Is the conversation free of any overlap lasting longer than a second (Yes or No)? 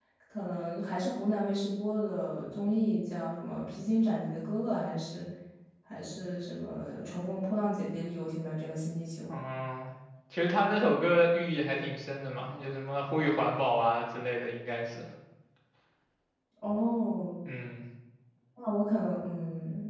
Yes